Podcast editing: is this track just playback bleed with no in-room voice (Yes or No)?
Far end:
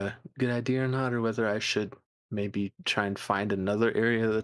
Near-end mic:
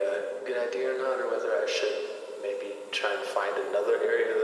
Yes